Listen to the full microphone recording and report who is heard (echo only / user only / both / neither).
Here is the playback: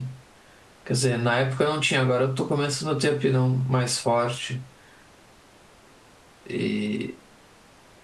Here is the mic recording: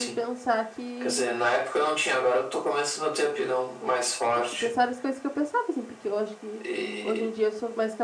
both